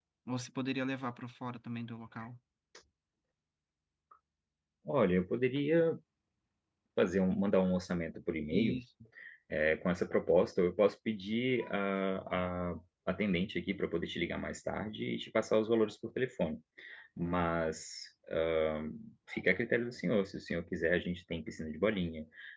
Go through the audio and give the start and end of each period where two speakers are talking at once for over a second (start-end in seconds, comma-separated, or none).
none